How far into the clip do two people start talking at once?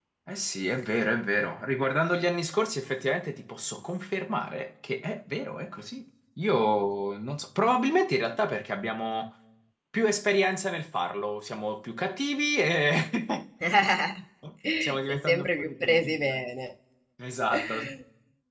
14.8 s

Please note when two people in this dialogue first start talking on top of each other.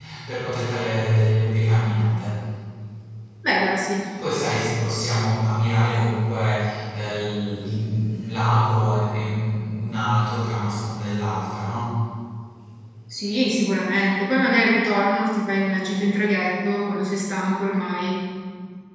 none

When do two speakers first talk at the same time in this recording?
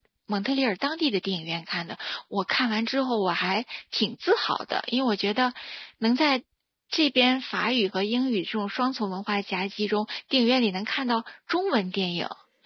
none

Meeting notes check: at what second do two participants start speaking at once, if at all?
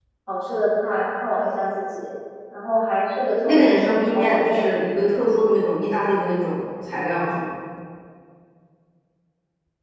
3.4 s

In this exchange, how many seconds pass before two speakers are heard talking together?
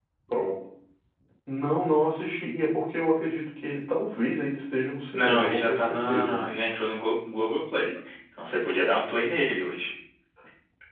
5.1 s

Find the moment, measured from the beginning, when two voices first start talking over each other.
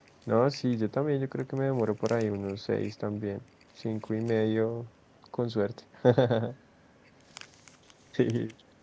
none

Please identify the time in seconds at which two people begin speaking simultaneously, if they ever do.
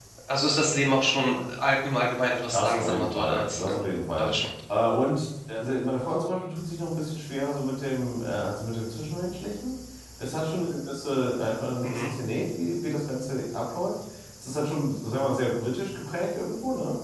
2.5 s

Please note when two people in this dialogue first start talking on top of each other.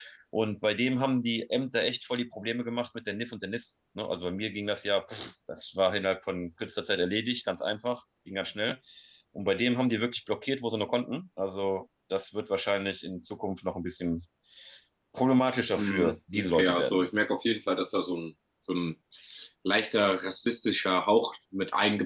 15.7 s

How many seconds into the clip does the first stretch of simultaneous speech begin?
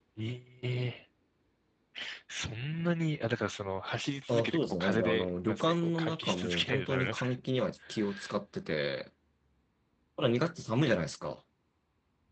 4.3 s

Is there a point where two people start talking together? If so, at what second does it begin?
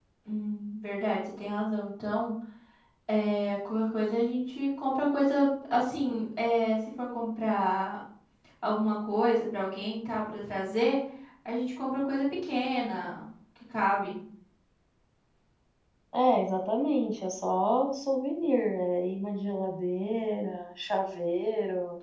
none

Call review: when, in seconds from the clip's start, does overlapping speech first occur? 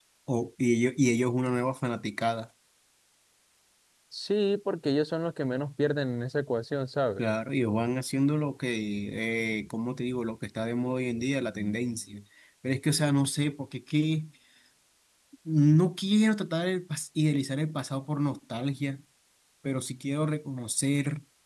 none

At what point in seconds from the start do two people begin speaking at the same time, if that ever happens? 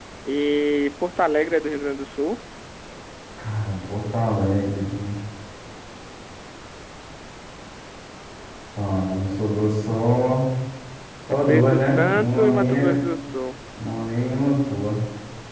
11.3 s

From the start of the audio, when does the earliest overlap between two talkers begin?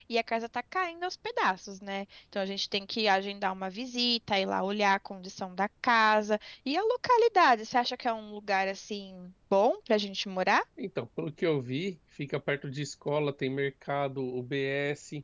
none

